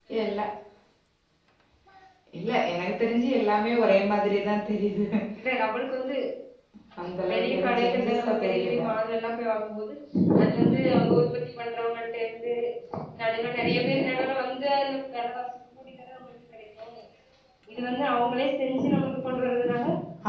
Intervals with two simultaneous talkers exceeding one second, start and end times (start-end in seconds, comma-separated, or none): 7.3-8.8